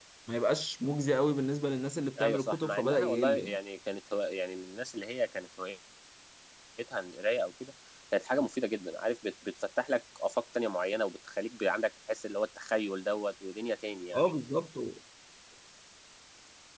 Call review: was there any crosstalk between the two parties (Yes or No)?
Yes